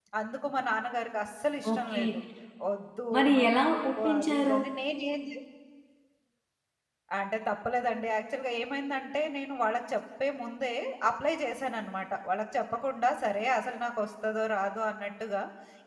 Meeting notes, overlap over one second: present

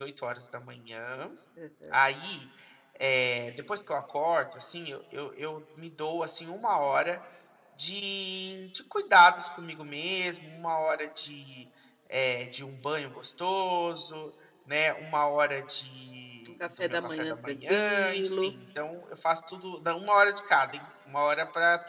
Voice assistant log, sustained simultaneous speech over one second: present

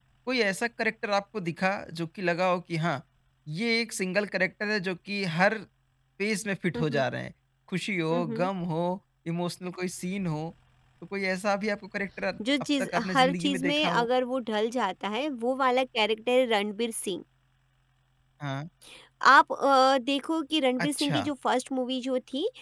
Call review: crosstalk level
present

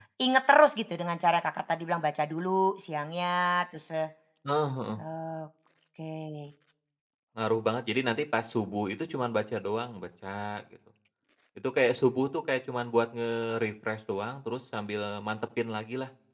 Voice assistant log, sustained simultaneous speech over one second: none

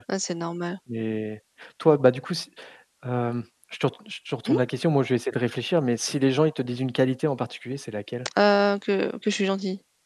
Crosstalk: none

